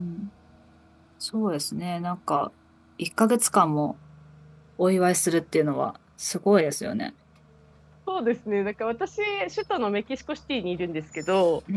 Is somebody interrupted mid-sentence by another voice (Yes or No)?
No